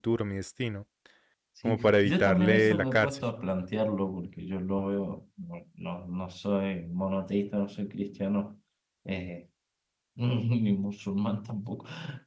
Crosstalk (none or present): present